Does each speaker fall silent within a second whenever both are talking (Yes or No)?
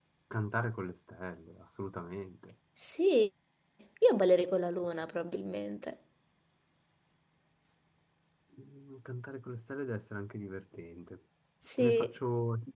Yes